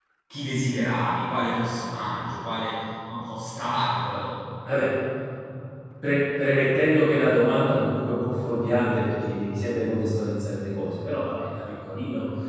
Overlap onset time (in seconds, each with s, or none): none